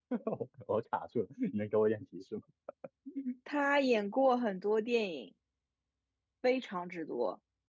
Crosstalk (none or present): none